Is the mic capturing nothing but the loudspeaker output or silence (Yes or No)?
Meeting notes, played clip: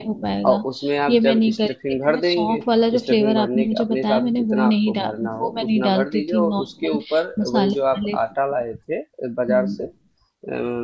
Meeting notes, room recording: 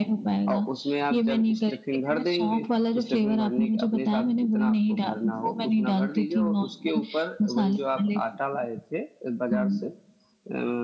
Yes